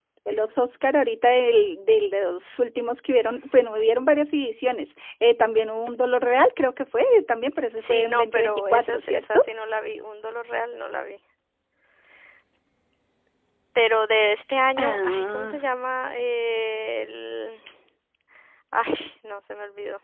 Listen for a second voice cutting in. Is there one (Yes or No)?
Yes